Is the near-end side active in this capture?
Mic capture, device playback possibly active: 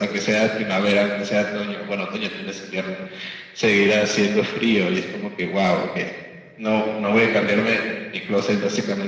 No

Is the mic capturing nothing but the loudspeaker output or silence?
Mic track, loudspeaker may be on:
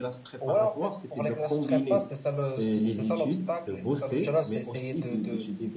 No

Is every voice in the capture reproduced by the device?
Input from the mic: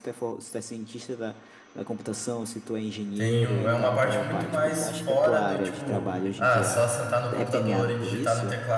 No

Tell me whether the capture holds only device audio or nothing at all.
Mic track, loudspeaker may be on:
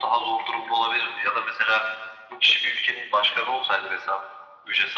Yes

